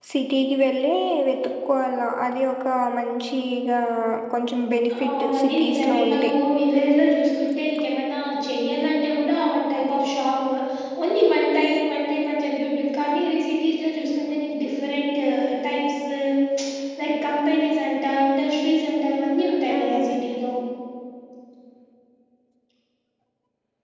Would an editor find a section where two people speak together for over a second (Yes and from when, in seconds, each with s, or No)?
Yes, from 5.0 s